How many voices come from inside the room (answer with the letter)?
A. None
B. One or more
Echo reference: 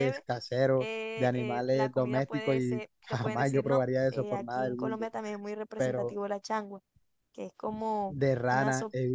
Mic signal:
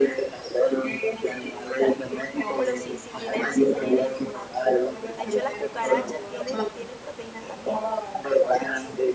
B